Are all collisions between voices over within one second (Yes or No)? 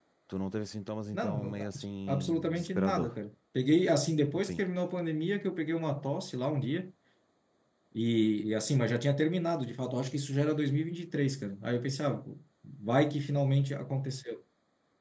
No